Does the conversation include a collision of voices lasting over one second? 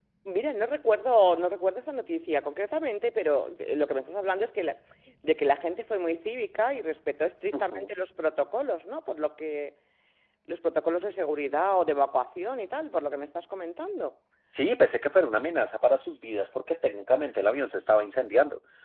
No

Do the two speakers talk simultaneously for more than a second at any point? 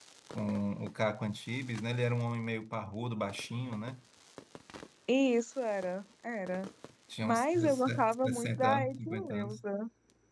Yes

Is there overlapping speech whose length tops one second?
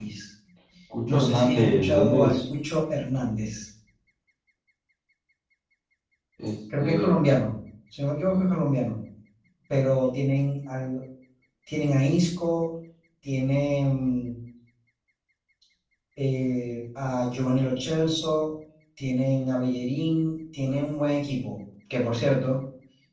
Yes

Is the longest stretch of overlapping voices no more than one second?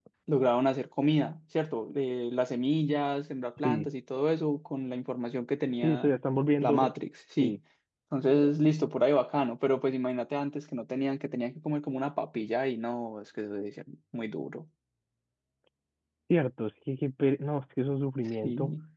Yes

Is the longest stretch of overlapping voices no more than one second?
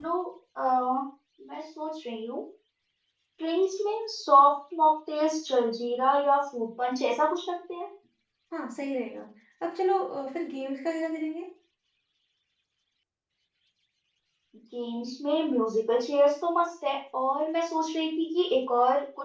Yes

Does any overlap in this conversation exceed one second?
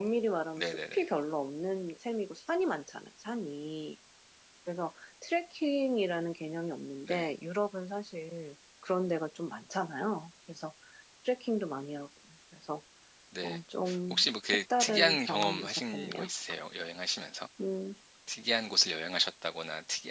Yes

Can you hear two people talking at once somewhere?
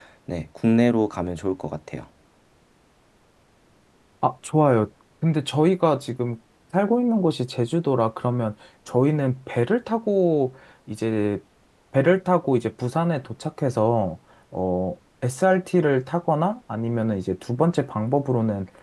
No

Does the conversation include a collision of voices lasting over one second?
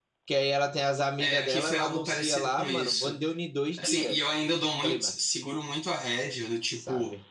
Yes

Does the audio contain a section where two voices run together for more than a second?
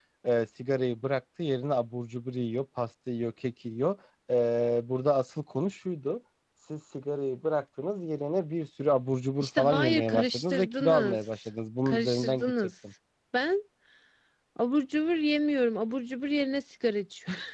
Yes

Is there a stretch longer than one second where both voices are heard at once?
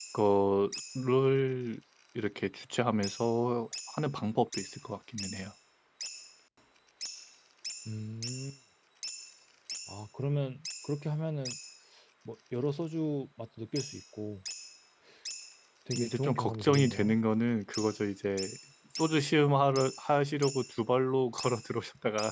Yes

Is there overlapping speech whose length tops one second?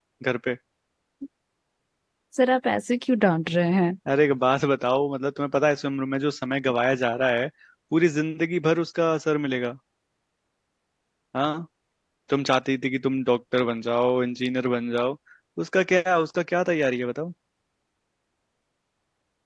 No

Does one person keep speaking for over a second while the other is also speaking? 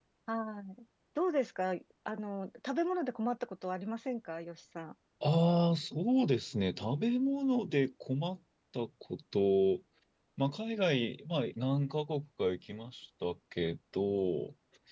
No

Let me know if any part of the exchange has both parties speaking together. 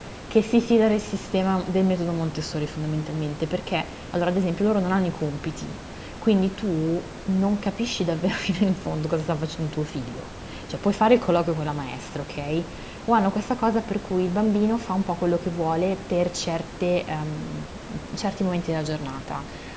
No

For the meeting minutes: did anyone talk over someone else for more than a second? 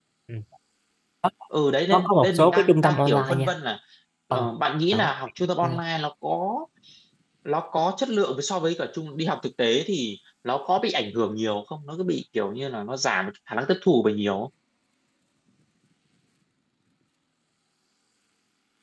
Yes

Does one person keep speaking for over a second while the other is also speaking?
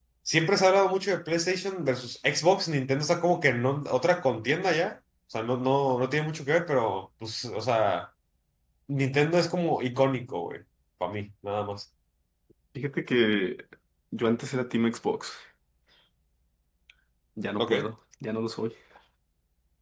No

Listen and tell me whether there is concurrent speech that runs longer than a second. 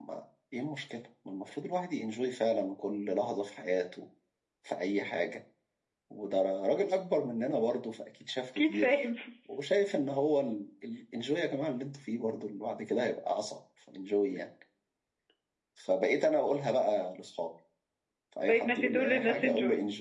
Yes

